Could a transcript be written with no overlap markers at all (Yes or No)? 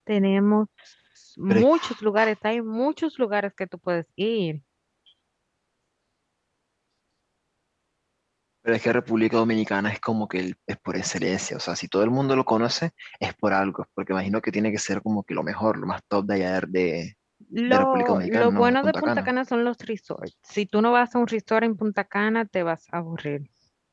No